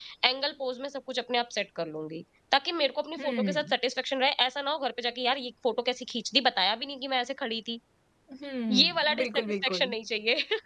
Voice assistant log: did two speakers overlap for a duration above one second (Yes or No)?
Yes